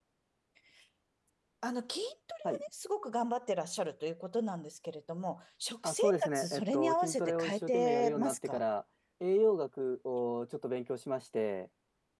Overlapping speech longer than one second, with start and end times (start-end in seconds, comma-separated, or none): 5.8-8.6